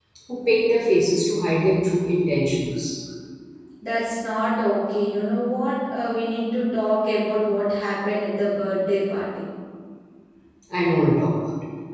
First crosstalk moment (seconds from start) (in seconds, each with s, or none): none